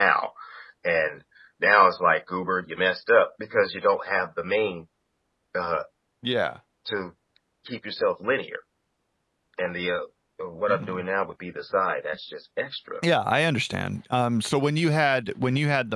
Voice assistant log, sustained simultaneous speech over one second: none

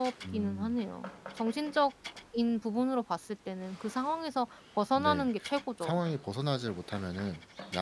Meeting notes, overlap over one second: none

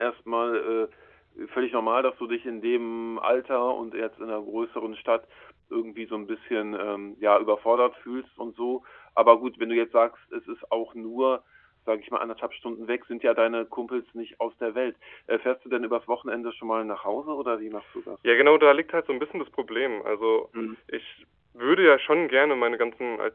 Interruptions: none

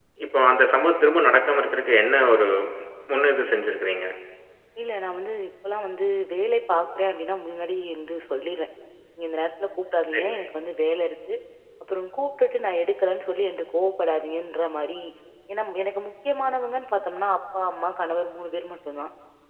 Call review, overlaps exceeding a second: none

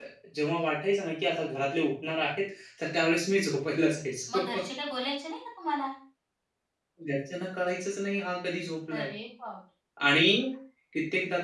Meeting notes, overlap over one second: none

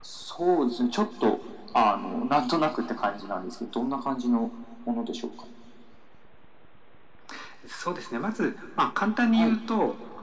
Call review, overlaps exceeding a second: none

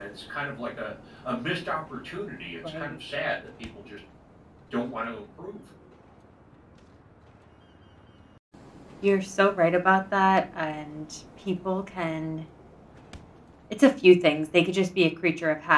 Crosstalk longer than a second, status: none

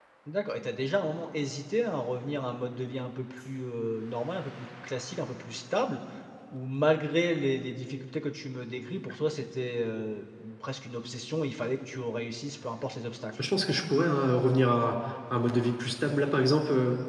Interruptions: none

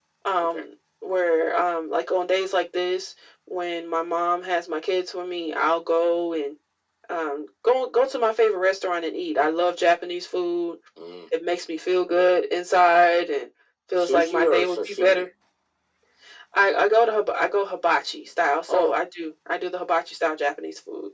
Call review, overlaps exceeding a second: present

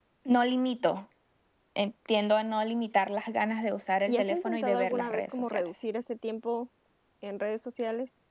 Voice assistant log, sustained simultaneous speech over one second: present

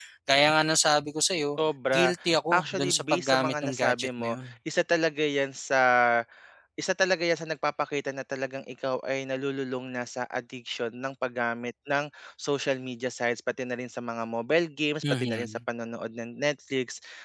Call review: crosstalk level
present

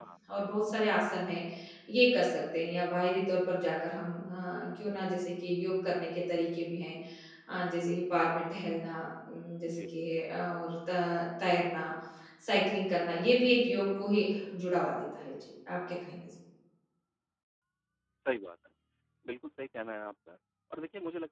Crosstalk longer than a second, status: none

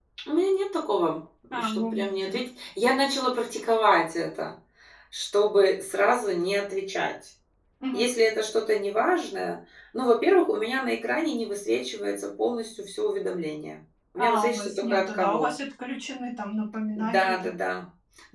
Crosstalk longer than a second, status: present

